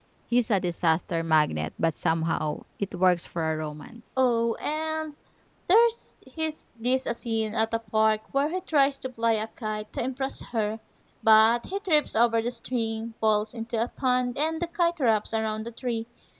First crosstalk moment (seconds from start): none

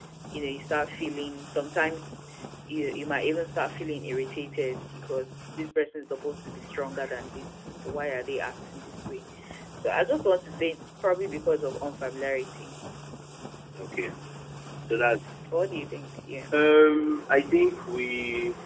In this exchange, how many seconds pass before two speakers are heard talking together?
none

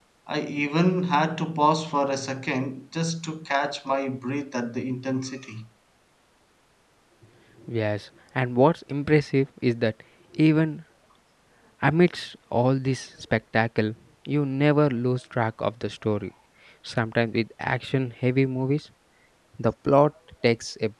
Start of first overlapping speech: none

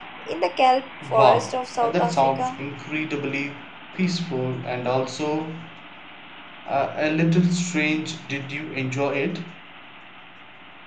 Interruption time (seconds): 1.1 s

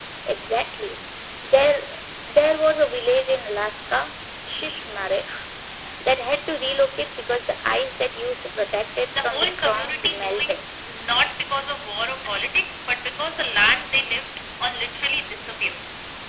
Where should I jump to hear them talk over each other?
9.2 s

